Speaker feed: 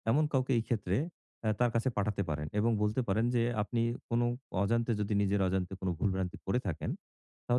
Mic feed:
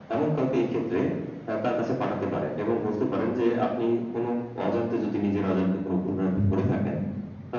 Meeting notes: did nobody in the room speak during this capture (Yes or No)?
No